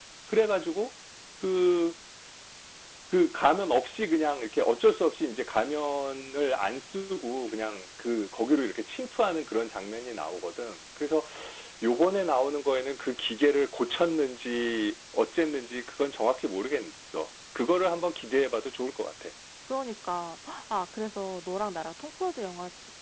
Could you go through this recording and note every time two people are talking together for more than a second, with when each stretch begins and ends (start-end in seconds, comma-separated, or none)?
none